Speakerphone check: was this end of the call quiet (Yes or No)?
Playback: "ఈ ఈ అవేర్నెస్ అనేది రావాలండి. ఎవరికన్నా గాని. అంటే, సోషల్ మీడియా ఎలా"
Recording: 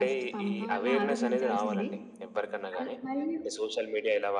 No